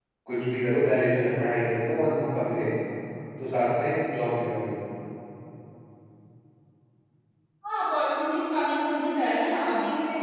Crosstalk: none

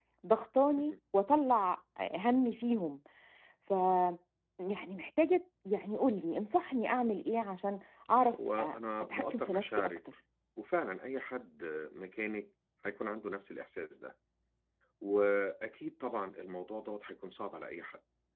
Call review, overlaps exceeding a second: present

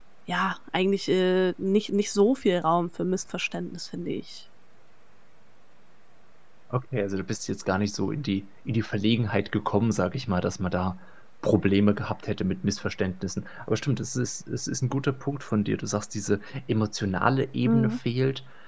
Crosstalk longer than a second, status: none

